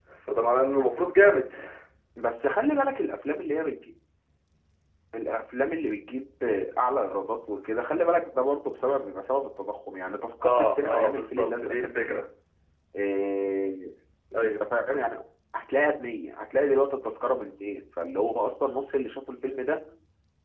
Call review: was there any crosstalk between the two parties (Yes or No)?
Yes